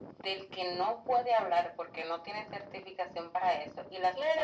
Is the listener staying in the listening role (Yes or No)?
No